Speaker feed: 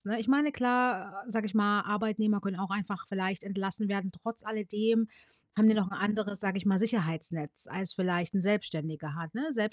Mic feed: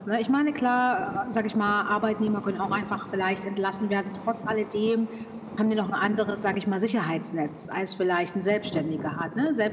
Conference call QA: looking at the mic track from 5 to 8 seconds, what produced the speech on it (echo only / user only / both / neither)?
echo only